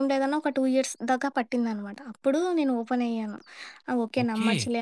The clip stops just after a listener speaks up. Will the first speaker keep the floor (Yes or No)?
No